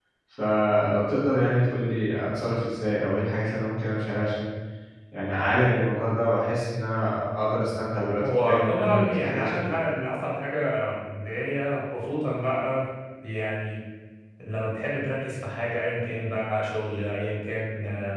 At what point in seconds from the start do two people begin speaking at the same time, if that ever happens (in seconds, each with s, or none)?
8.2 s